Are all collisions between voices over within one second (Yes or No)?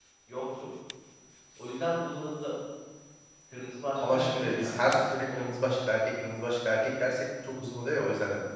No